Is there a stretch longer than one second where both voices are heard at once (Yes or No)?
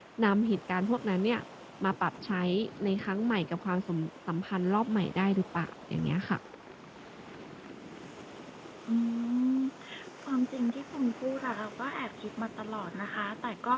No